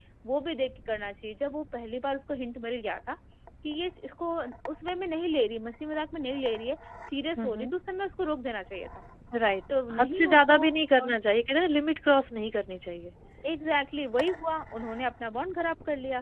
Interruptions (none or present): present